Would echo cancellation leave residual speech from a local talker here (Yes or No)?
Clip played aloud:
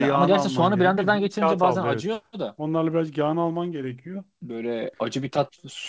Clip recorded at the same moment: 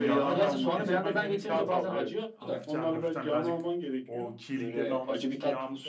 Yes